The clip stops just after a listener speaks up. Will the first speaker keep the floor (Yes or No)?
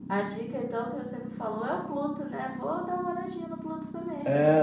No